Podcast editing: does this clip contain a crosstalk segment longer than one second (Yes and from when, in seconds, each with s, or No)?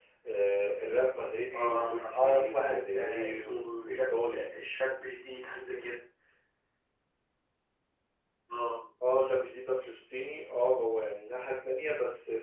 Yes, from 1.5 s